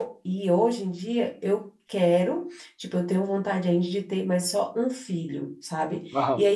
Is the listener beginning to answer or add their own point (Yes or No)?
No